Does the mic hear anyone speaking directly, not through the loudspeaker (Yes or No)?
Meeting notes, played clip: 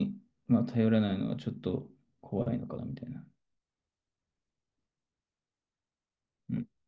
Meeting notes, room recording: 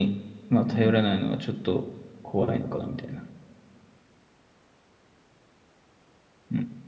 Yes